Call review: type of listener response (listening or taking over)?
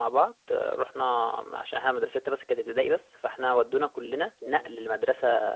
listening